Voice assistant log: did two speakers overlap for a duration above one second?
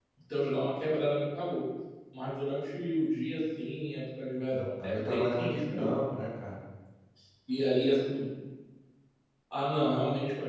Yes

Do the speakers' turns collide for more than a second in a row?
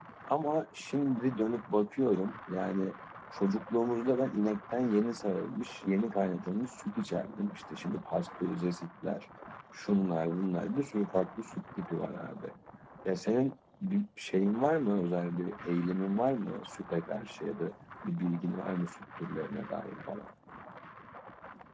No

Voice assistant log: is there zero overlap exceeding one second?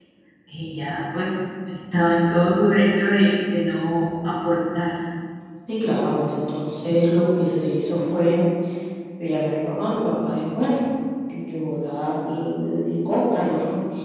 Yes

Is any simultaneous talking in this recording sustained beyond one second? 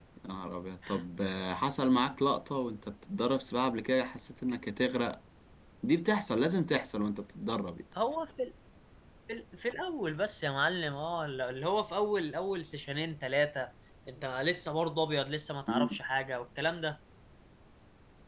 No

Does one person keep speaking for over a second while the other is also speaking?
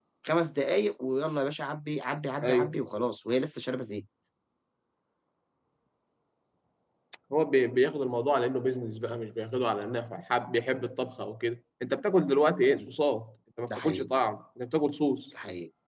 No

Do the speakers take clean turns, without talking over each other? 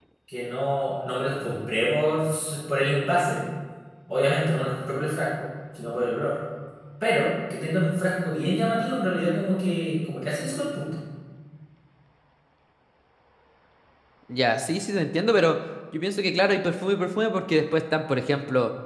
Yes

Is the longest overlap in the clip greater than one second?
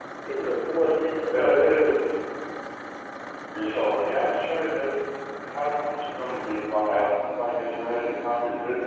No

